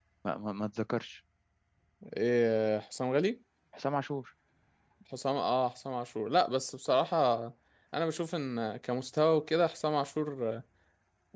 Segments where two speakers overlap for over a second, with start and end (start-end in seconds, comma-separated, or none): none